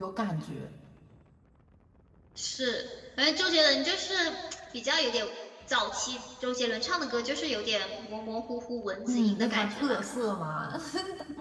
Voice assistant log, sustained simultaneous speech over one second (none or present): present